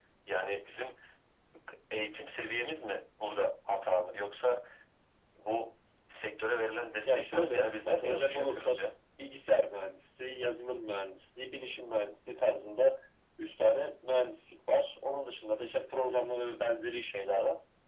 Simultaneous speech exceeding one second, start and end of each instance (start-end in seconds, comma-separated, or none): 7.1-8.8